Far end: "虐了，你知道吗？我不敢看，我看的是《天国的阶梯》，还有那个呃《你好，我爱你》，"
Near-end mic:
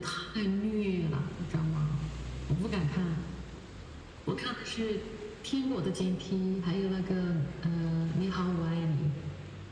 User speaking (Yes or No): No